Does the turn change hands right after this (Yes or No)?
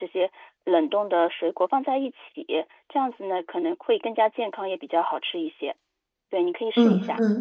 Yes